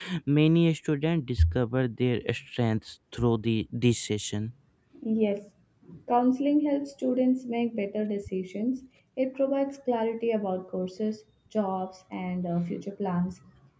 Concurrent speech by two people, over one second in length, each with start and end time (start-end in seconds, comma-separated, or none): none